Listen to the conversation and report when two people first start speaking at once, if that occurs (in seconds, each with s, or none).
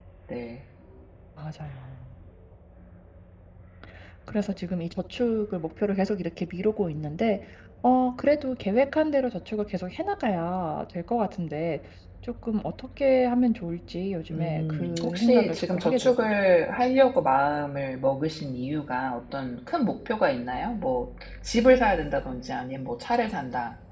14.3 s